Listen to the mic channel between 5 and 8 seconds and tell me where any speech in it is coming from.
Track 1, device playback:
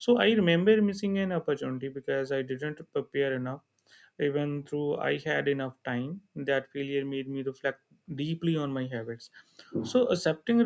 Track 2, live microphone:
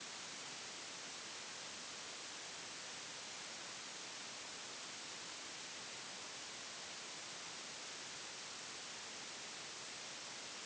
neither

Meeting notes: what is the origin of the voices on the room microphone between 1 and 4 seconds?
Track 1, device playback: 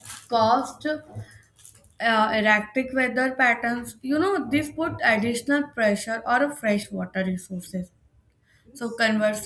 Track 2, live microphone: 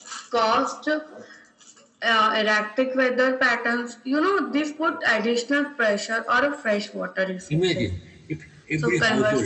echo only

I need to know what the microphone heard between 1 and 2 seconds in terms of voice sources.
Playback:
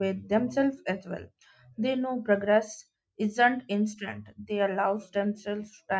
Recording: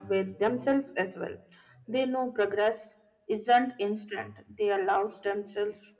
echo only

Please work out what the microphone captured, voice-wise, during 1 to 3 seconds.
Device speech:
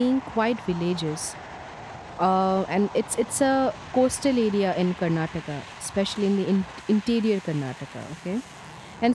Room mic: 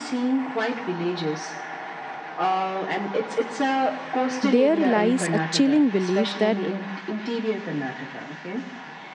echo only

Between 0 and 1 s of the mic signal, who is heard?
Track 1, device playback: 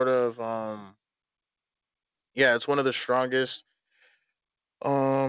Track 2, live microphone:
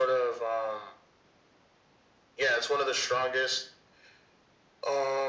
echo only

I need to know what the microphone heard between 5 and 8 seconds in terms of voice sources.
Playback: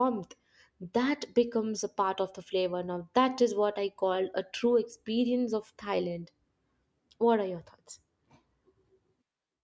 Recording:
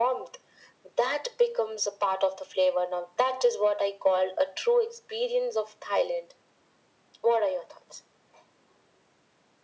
echo only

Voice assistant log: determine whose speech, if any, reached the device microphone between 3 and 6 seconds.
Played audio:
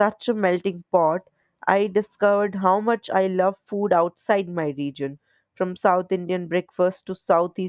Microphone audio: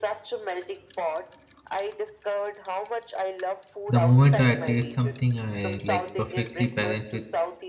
both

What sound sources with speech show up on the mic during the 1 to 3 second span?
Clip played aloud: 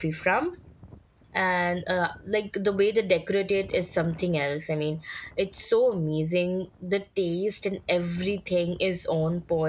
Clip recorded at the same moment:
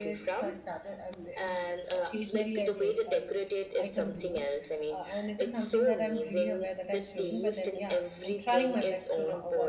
both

